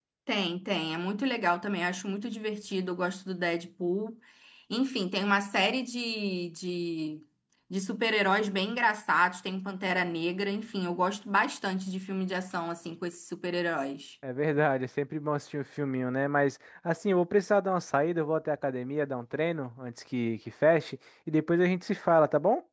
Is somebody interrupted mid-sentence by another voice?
No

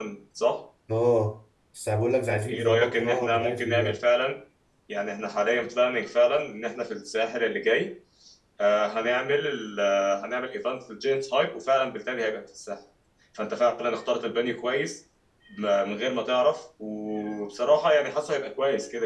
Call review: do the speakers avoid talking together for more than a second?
No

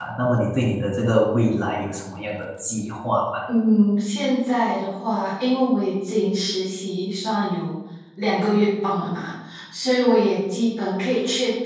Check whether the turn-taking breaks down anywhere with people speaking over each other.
No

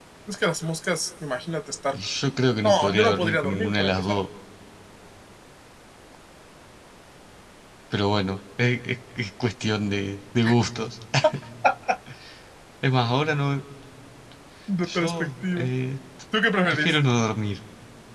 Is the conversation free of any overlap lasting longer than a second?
No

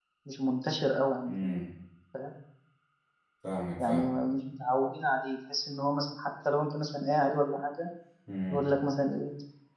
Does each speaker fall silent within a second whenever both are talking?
Yes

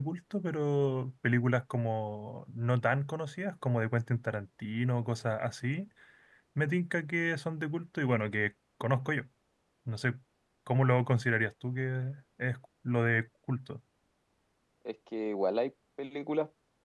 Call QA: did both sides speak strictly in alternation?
Yes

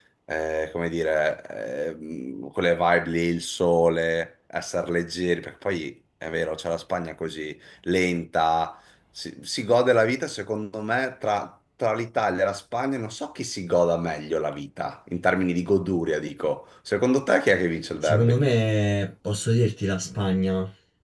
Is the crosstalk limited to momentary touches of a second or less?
Yes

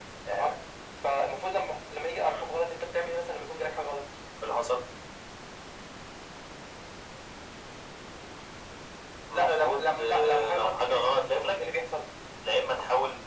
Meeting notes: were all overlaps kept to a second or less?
No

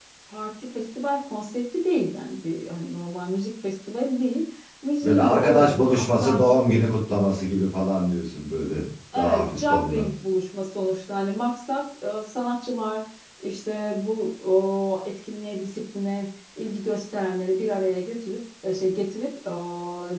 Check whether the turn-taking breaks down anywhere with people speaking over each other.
Yes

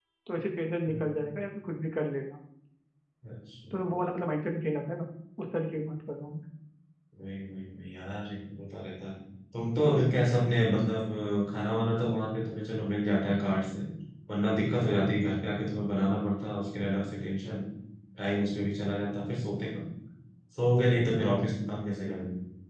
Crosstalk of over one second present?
No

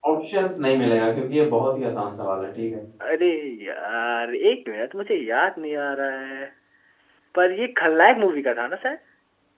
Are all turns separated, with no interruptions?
Yes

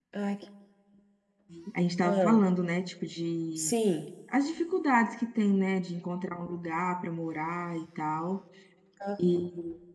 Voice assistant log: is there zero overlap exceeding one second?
Yes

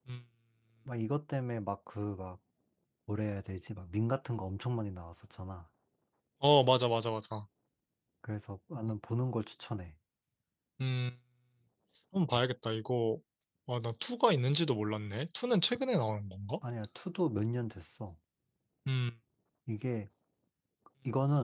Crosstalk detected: No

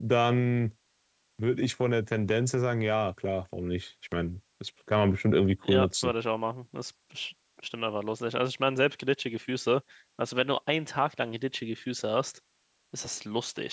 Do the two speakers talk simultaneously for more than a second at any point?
No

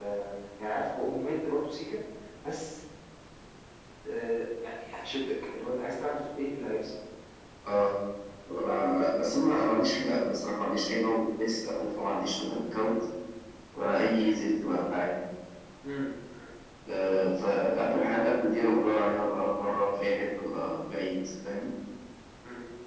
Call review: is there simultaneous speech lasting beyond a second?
No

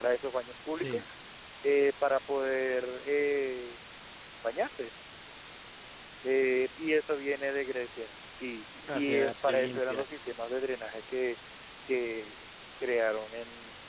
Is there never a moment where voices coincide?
No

